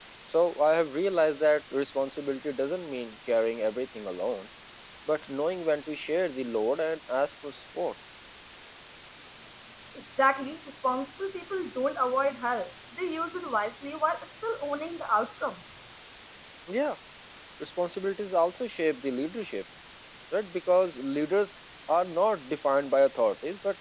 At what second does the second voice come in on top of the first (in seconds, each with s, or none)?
none